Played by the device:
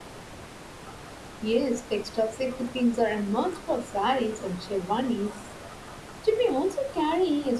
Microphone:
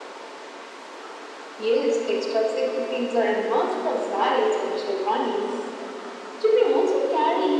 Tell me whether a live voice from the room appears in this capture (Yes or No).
No